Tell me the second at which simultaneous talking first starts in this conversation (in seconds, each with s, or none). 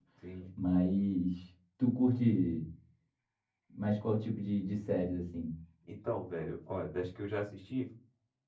none